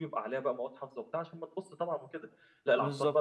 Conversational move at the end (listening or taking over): listening